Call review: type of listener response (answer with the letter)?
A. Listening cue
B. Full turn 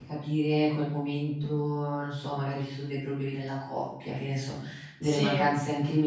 A